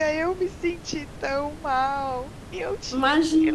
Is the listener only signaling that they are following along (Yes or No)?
Yes